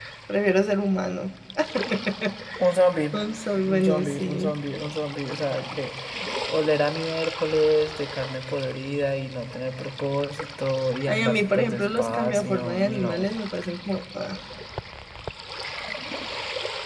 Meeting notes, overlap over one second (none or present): present